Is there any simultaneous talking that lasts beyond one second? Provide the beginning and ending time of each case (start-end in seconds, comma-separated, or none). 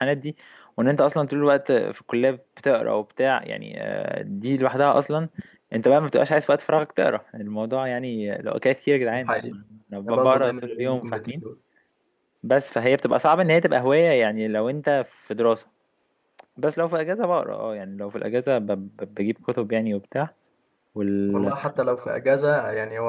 10.1-11.4